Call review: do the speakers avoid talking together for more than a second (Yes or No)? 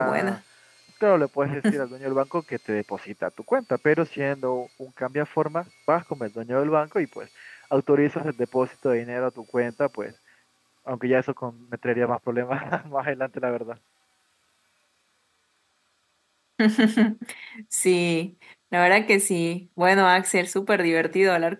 Yes